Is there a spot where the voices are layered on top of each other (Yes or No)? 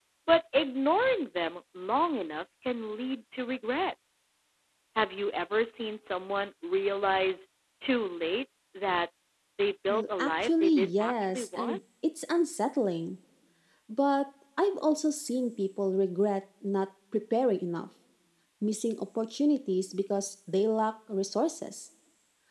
Yes